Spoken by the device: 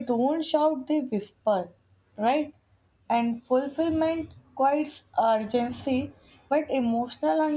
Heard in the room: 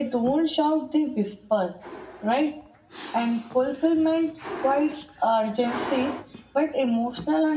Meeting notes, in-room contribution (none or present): none